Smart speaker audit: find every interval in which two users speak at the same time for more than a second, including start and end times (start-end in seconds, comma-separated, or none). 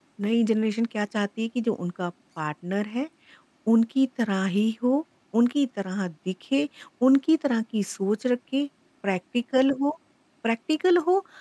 none